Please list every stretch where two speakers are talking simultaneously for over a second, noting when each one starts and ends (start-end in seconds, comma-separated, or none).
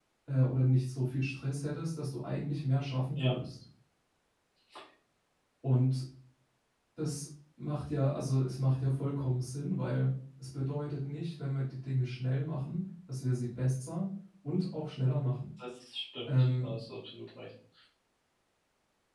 none